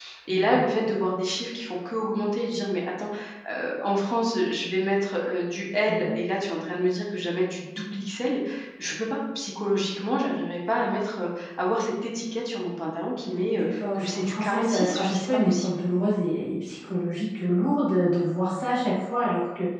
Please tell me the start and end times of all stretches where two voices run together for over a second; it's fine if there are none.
13.5-15.7

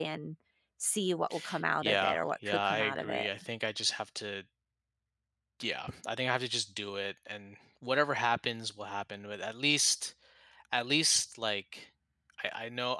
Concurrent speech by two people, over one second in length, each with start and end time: 1.8-3.3

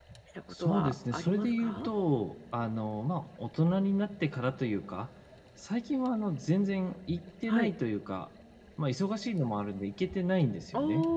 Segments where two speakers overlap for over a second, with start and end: 0.5-1.9

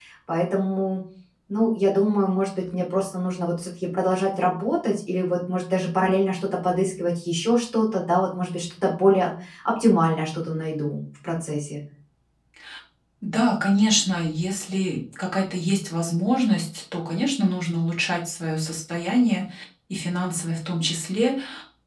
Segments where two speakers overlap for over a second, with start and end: none

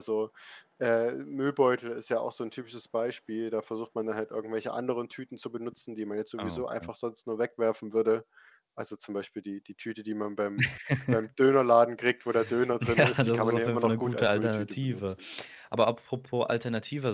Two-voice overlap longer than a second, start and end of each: 13.0-15.0

